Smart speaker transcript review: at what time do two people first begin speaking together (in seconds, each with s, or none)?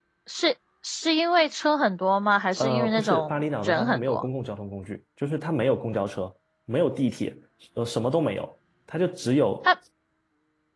2.6 s